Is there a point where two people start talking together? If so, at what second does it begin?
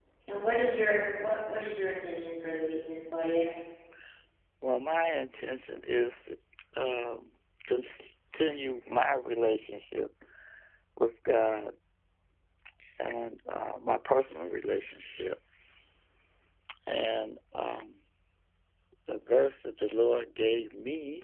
none

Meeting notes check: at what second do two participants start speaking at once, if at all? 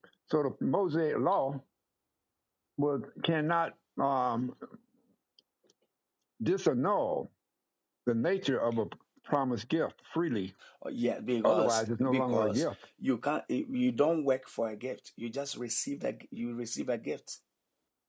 11.4 s

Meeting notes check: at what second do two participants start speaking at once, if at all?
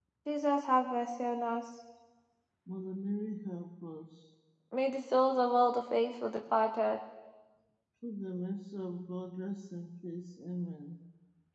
none

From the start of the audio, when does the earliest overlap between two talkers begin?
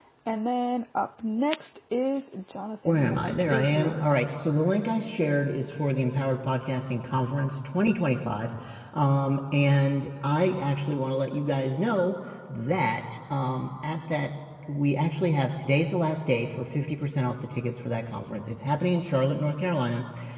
2.9 s

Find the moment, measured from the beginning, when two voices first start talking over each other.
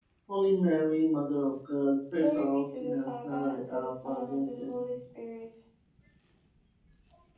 2.1 s

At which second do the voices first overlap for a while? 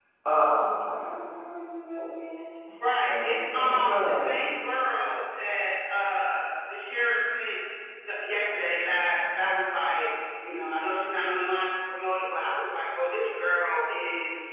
3.1 s

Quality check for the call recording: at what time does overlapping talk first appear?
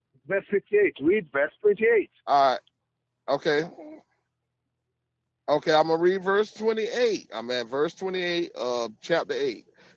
none

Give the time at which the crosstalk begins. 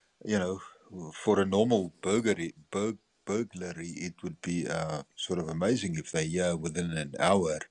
none

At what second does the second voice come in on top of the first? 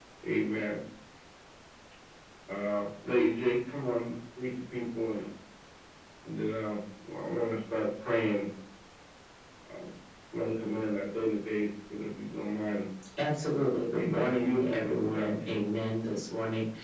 13.9 s

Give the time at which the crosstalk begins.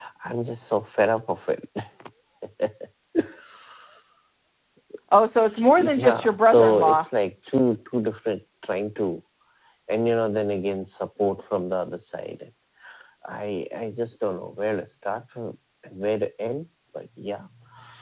5.7 s

